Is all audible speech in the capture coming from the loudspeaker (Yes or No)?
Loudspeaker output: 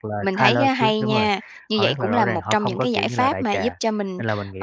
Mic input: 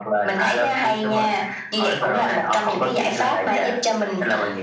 Yes